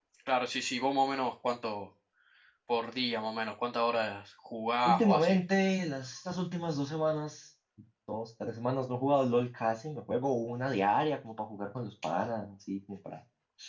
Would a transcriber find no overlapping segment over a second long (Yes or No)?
Yes